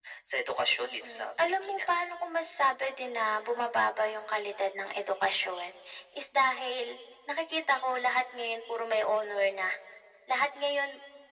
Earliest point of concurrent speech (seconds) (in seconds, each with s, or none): 0.8 s